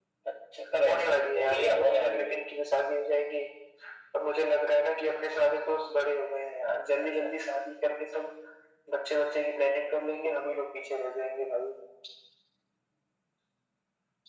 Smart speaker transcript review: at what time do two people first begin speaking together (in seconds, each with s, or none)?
0.8 s